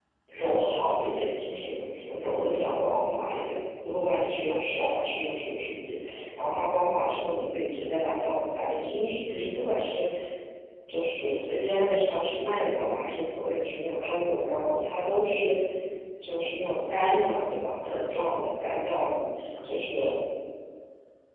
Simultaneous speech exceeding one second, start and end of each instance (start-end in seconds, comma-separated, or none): none